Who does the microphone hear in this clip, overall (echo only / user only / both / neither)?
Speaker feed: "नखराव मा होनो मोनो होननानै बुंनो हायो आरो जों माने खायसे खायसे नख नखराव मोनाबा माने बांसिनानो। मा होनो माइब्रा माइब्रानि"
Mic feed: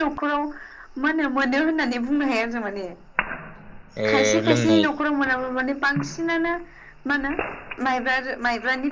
both